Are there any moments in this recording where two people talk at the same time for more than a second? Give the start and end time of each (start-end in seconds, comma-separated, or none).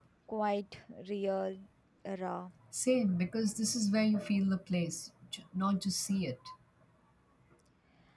none